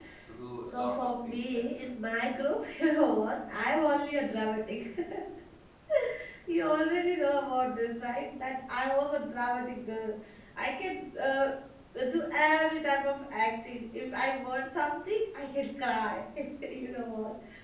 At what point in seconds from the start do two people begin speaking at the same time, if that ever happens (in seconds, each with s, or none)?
0.6 s